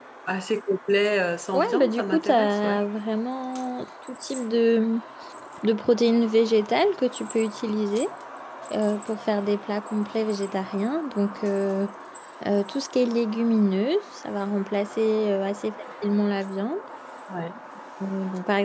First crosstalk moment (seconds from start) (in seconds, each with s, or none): 1.5 s